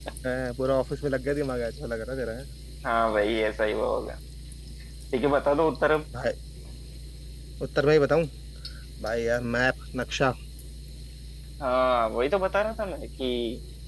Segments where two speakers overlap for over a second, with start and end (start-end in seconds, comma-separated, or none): none